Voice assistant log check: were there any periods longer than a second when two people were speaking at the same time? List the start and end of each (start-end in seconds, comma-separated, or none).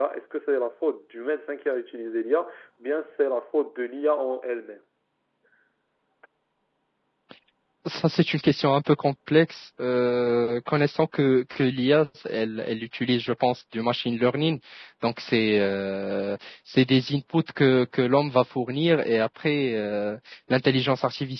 none